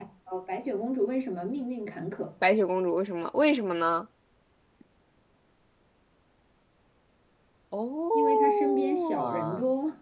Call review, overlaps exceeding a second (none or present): present